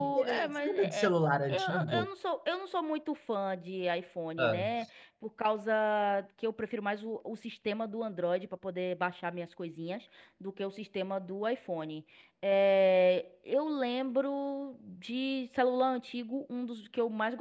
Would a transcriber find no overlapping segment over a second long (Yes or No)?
No